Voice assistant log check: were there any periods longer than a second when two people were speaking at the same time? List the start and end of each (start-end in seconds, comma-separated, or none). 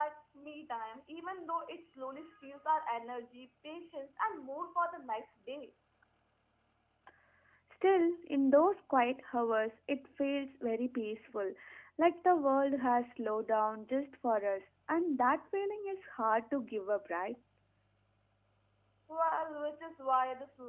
none